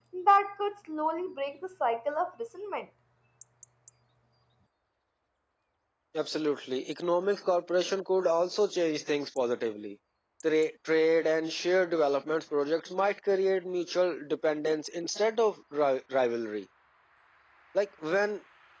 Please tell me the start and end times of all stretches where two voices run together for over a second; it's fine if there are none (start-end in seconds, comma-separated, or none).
none